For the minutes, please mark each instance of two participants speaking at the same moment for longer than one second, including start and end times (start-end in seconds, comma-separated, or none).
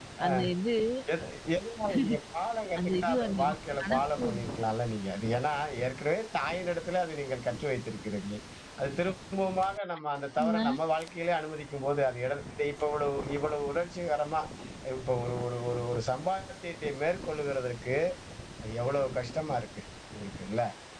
2.8-4.2